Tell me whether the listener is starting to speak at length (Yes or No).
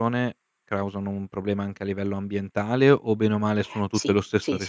Yes